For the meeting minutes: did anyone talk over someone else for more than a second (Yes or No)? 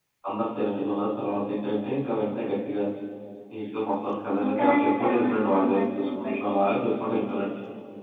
Yes